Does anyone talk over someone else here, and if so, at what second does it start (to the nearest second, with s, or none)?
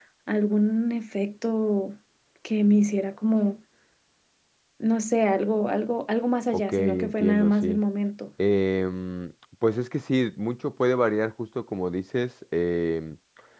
7 s